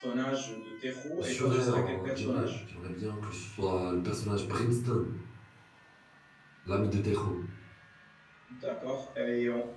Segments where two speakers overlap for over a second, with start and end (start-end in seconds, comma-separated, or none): 1.2-2.5